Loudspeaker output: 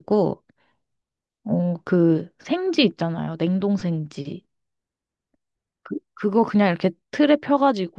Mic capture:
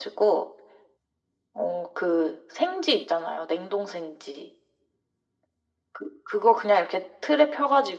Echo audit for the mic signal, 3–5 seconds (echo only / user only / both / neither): echo only